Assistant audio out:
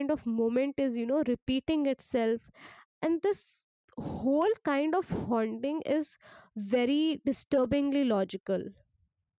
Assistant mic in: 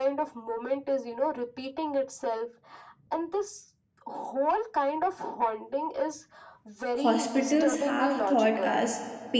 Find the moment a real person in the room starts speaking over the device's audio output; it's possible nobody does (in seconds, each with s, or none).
7.0 s